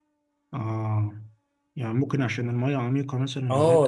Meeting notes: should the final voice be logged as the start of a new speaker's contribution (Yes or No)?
Yes